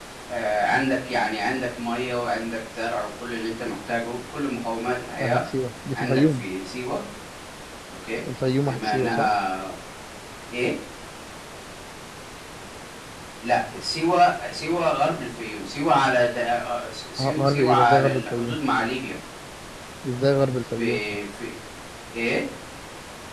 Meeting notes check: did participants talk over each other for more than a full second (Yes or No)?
Yes